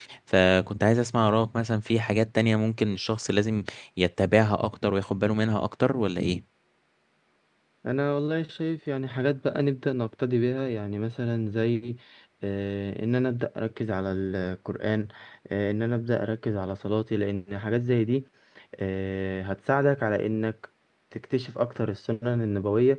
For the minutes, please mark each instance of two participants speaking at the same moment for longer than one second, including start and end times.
none

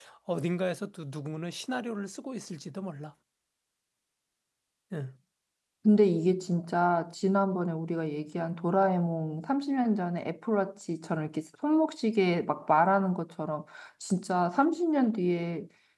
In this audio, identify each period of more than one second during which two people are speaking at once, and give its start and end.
none

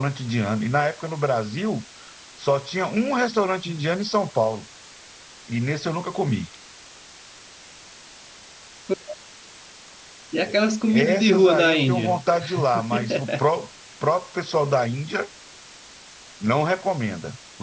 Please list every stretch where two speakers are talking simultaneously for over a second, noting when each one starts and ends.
10.9-12.2

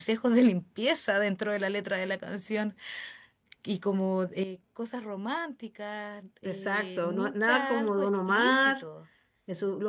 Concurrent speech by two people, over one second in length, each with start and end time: 6.4-8.8

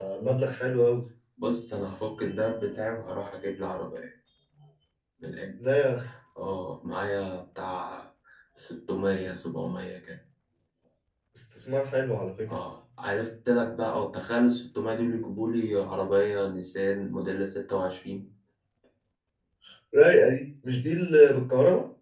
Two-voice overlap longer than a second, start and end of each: none

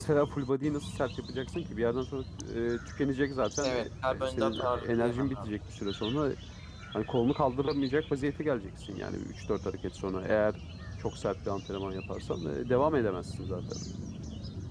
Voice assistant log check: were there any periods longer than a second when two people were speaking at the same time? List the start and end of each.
3.6-5.5

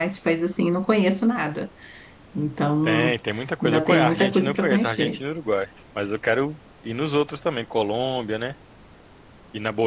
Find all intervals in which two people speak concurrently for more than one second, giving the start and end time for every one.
3.6-5.2

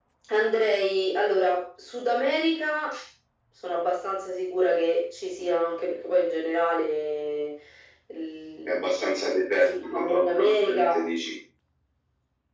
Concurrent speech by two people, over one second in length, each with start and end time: 9.6-11.0

